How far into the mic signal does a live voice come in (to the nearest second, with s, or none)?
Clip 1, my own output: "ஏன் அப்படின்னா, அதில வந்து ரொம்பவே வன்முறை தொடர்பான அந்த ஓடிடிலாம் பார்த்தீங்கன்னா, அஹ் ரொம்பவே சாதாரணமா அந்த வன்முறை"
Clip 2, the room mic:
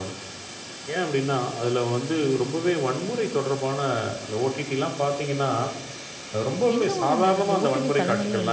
7 s